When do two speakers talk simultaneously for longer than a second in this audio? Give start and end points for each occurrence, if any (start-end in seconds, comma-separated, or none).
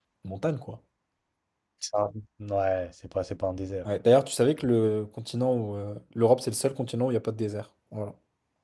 none